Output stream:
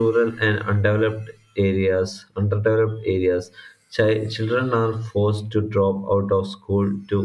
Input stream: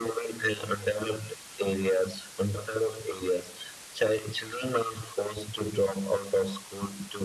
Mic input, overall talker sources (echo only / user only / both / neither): echo only